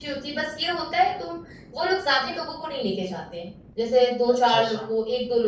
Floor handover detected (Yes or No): No